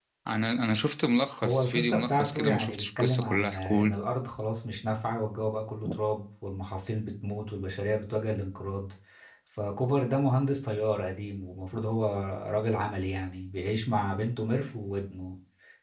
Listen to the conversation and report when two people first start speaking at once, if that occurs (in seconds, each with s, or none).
1.4 s